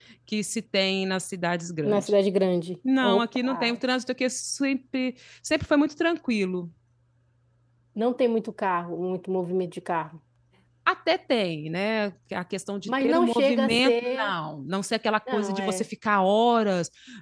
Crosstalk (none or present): present